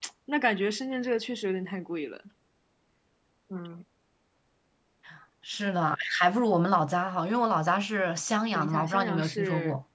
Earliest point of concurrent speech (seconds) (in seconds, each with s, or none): 8.5 s